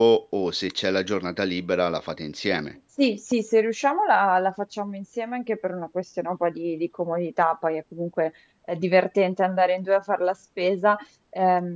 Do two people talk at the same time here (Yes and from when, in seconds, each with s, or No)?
No